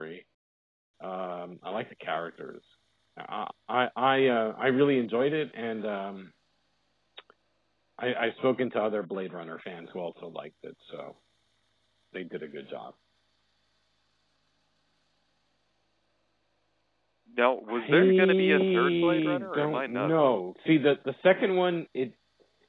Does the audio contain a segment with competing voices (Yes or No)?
Yes